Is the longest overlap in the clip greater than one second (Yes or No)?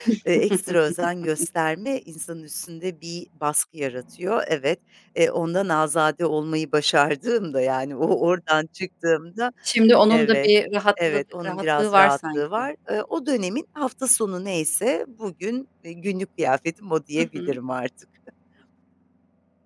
Yes